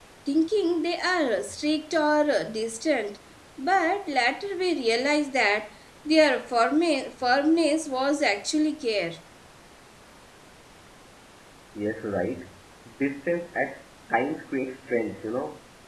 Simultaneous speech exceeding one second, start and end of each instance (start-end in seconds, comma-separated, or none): none